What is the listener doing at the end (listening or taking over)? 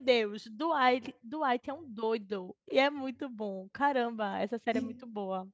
taking over